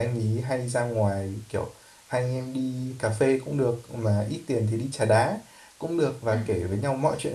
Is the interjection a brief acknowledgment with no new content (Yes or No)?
Yes